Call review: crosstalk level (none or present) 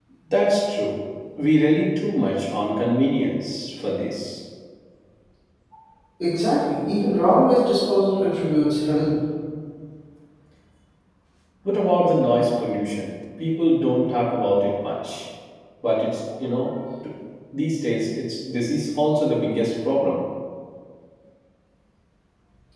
none